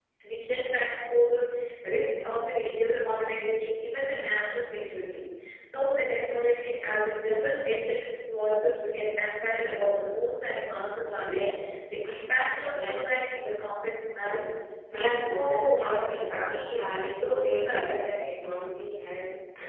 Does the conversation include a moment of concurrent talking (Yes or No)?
Yes